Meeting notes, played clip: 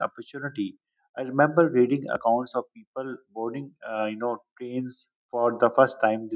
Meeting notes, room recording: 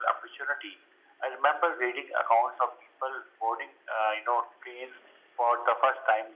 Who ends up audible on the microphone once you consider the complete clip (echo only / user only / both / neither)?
echo only